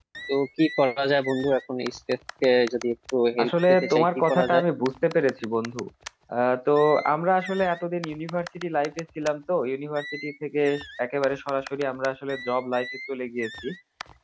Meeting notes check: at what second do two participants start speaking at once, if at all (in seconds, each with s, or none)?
3.4 s